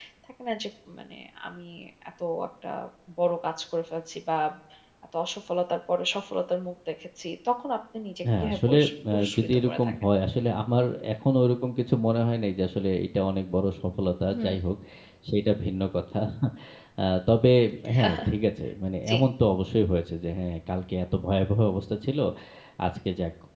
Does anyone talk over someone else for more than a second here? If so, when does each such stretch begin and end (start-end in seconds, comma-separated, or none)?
8.3-9.9